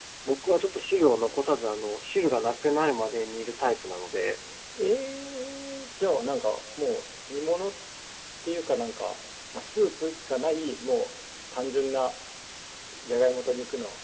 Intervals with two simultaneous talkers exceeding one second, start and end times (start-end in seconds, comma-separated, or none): none